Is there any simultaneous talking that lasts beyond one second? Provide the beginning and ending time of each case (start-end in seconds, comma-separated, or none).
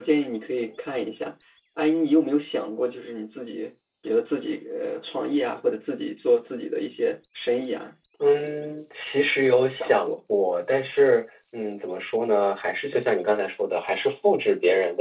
none